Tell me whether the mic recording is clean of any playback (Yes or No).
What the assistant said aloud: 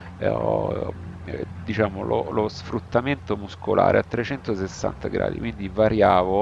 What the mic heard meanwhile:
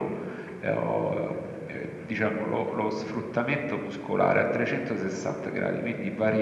No